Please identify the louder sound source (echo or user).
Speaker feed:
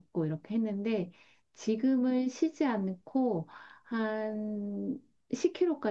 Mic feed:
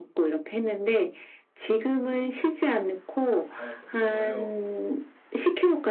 echo